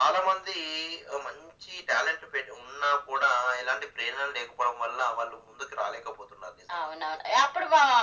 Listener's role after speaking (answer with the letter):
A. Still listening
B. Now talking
B